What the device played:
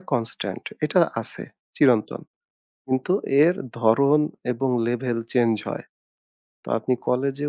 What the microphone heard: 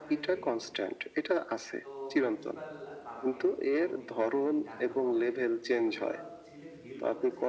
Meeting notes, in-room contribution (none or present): present